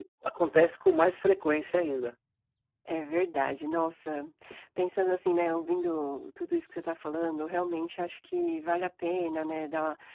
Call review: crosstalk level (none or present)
none